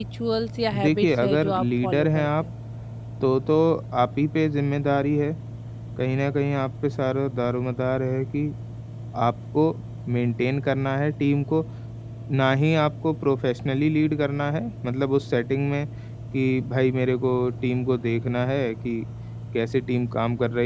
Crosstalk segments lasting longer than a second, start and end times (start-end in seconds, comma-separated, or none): 0.8-2.4